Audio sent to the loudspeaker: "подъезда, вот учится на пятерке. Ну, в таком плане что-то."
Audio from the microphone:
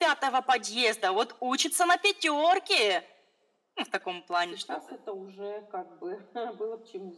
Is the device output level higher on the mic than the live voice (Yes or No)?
Yes